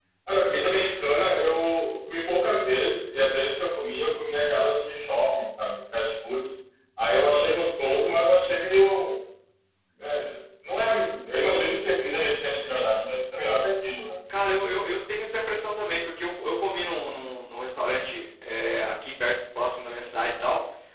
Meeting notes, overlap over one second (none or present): none